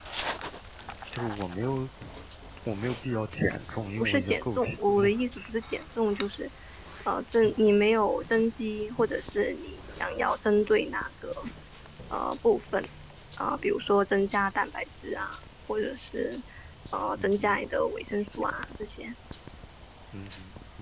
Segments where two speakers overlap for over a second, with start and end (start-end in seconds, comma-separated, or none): 4.0-5.2